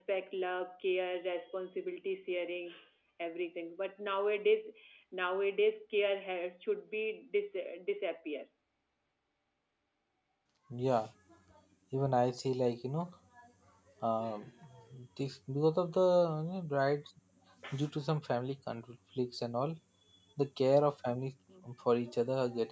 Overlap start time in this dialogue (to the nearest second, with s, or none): none